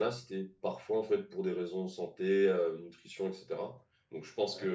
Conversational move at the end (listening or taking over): listening